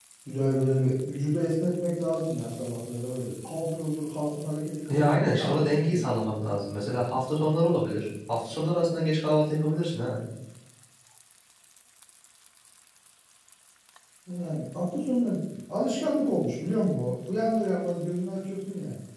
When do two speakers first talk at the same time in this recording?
5 s

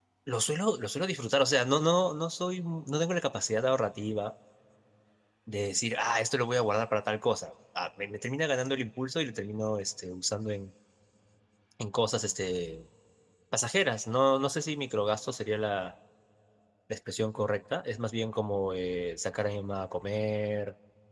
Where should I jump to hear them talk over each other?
none

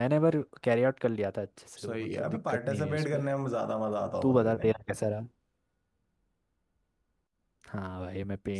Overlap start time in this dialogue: 2 s

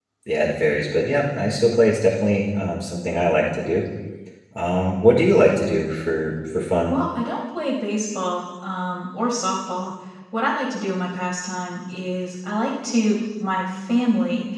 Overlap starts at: none

